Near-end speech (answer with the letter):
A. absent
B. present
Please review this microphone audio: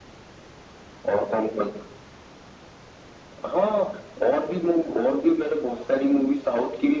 A